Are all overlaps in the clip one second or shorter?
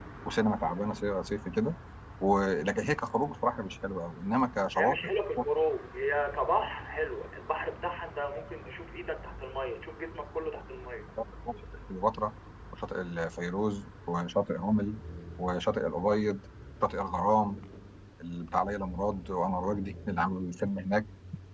Yes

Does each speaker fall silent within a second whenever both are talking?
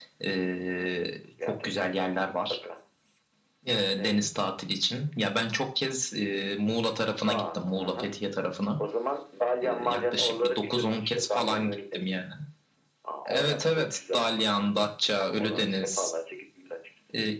No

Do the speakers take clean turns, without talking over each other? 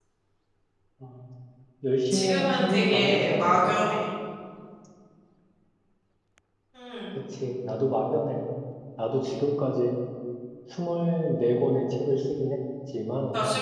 No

